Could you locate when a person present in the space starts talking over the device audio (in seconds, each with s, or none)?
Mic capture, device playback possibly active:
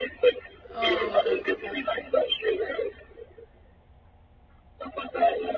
0.7 s